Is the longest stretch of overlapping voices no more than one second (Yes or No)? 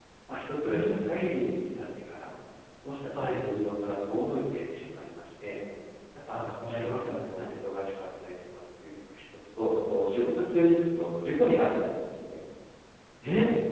No